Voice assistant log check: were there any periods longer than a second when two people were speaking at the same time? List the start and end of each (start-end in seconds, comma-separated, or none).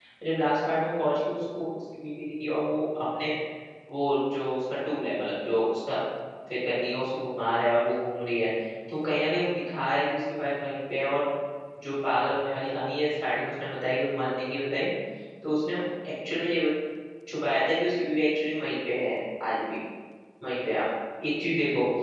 none